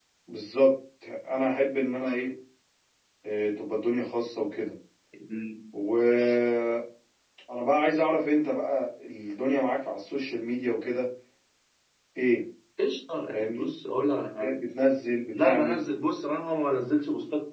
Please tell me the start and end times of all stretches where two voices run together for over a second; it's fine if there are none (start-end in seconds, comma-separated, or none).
none